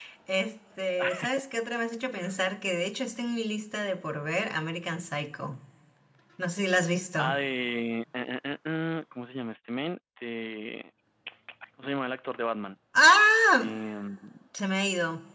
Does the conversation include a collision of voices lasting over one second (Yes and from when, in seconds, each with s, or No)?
No